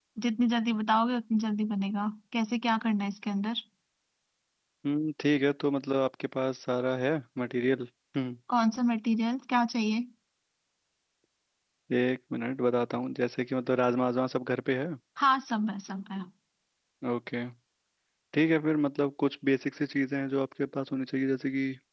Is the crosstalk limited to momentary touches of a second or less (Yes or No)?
Yes